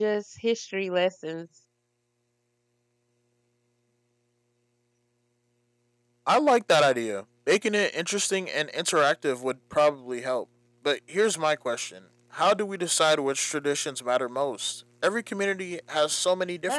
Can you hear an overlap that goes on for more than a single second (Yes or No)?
No